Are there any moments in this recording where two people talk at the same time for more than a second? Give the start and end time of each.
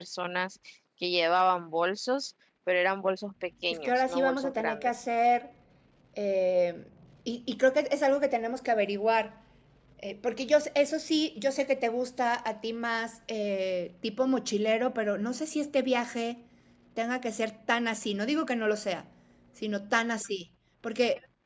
3.8-5.0

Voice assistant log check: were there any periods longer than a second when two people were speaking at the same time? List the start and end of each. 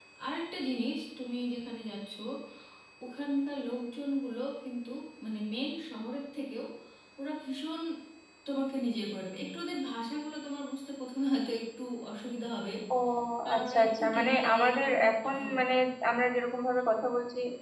13.6-15.6

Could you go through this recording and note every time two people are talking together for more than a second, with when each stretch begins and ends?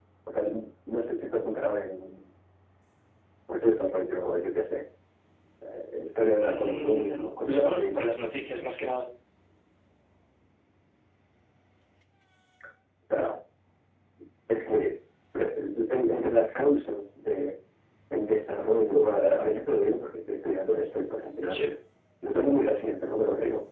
6.5-8.1

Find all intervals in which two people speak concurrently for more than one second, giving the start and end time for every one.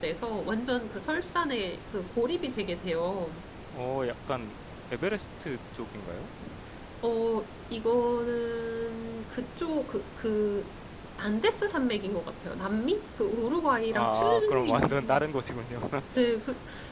13.9-15.3

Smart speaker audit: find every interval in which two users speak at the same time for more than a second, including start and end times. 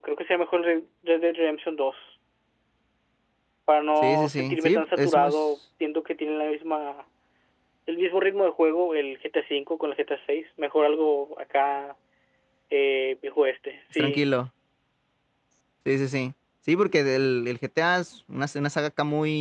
4.0-5.3

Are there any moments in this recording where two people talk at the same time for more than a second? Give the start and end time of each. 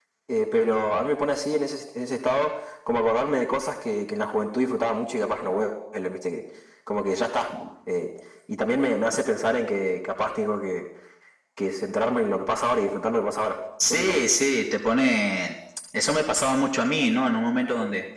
none

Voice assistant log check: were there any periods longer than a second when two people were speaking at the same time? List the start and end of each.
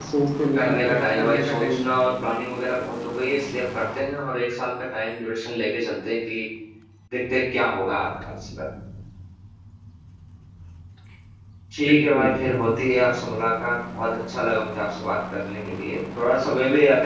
0.6-1.9

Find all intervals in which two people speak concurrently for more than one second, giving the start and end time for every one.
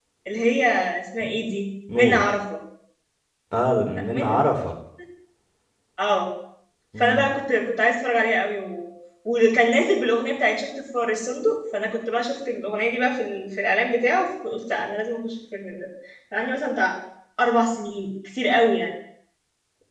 none

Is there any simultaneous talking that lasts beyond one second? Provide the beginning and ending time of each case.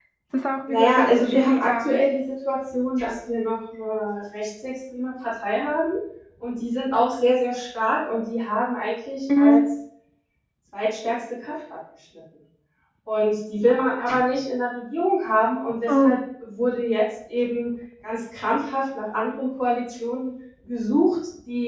0.7-2.0

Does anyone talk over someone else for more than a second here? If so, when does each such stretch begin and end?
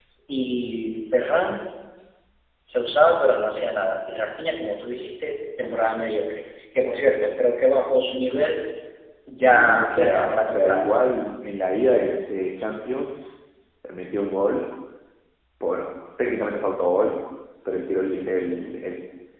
9.4-10.9

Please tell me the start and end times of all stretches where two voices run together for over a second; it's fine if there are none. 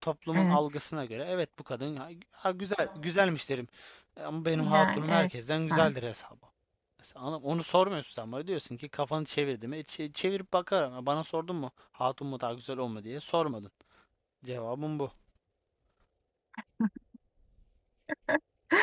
4.6-5.9

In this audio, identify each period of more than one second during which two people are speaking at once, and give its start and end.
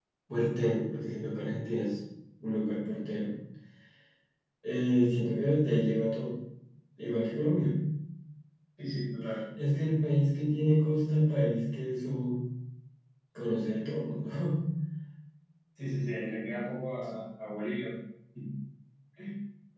none

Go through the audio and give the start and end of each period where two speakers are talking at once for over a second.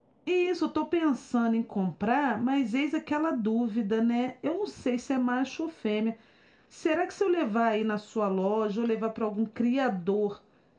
none

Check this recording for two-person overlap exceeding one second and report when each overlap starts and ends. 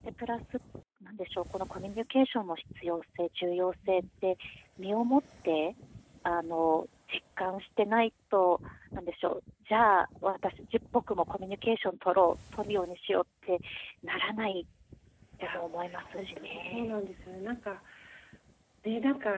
15.4-17.0

